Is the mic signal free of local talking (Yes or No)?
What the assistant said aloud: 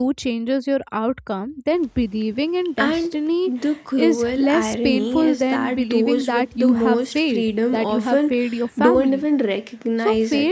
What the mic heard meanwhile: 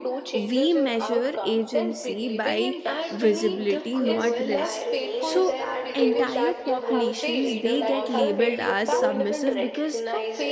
No